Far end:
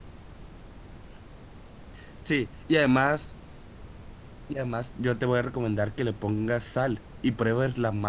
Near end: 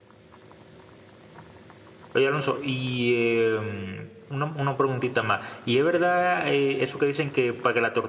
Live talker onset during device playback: 2 s

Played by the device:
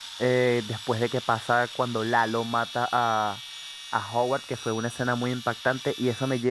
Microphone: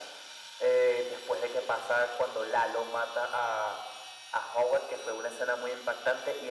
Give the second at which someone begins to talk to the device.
none

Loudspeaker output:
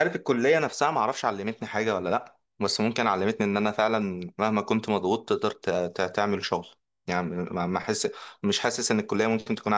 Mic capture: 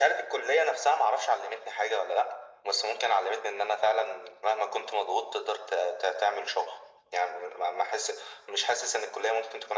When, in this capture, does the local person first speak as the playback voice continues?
none

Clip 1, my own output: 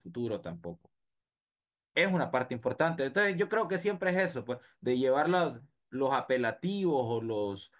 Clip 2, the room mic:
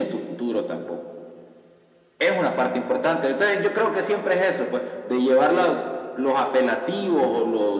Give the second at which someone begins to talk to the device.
none

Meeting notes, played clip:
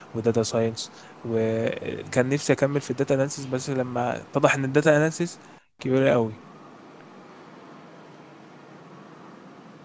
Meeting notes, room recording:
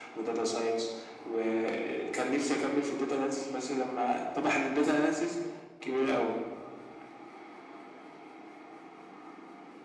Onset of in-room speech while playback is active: none

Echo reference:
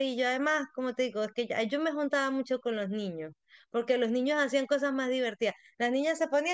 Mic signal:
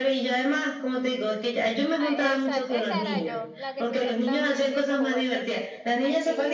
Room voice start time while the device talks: 2 s

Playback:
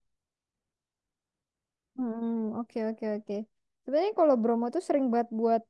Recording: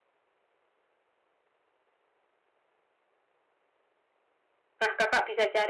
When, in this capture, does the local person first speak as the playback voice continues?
5 s

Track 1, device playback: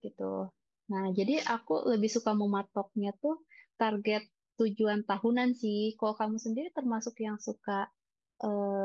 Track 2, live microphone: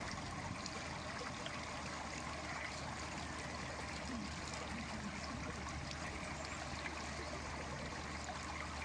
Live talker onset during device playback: none

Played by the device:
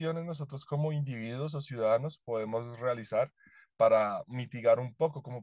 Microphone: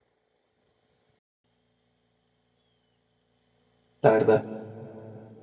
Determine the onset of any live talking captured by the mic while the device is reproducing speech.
4 s

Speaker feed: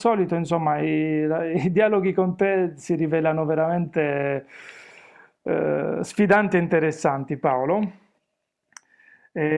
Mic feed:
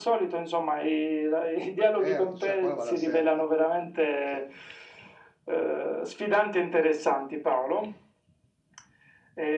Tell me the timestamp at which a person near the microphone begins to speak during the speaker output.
2 s

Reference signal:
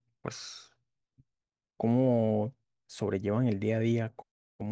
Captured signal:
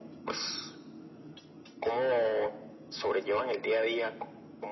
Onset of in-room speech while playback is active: none

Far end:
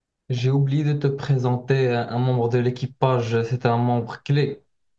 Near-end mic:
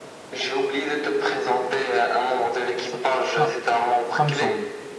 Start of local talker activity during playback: 3 s

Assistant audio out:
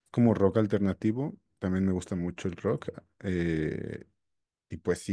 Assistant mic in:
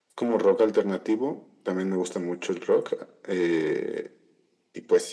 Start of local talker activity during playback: none

